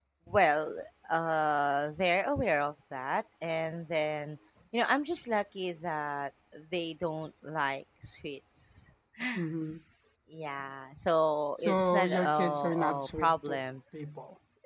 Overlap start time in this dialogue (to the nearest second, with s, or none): 12 s